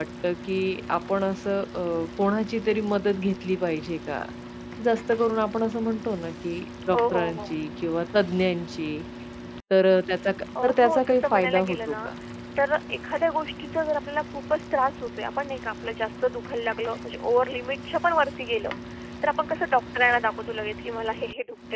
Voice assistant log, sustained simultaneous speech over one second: present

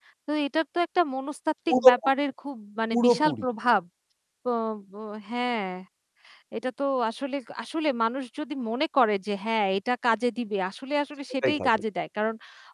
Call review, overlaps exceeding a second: none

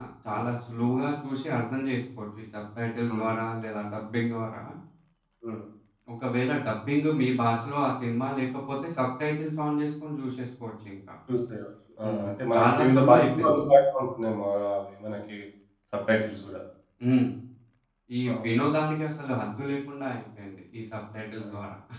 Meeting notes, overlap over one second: present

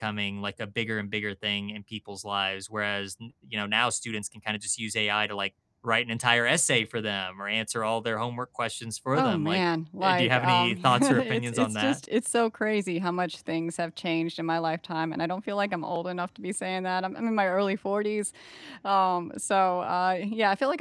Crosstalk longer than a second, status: present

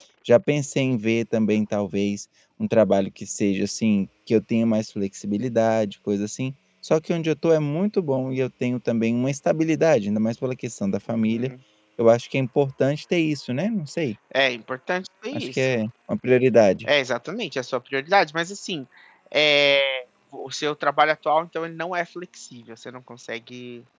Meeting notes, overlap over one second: none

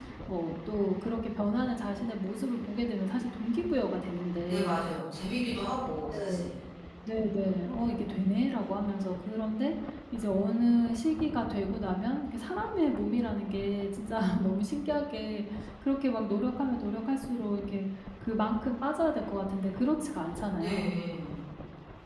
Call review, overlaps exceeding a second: none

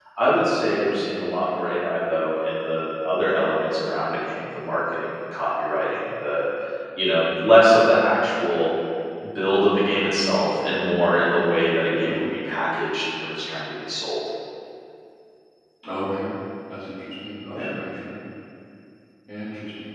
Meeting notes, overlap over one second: none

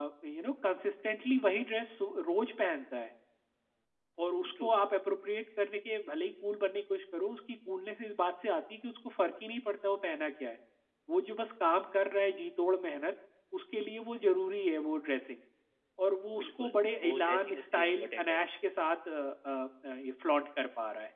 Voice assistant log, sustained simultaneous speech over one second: present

